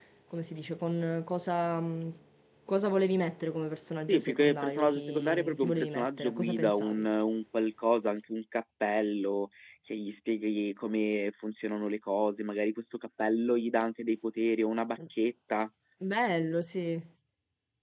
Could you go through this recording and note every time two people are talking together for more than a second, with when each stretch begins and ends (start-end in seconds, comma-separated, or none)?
4.1-7.0